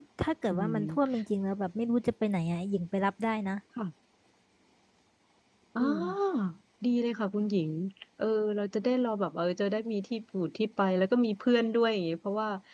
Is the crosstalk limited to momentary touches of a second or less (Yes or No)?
Yes